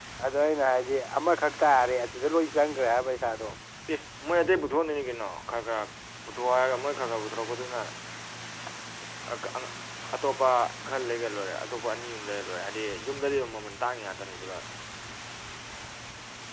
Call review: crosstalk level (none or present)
none